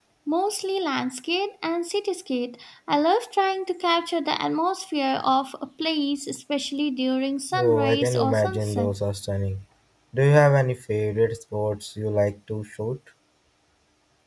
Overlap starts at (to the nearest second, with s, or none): 8 s